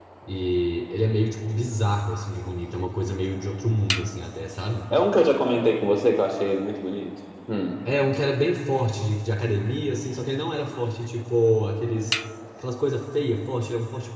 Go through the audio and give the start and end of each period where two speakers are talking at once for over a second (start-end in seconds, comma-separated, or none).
none